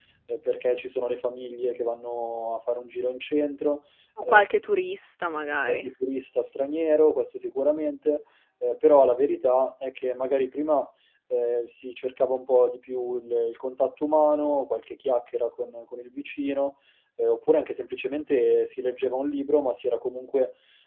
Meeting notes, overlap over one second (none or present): none